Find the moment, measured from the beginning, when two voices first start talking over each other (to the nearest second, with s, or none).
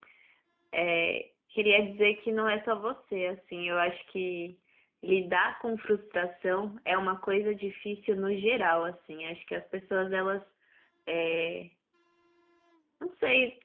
none